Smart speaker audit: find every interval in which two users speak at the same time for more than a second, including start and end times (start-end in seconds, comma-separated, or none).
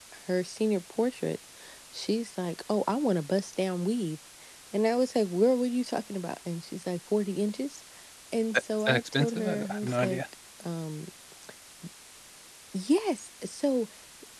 8.8-10.2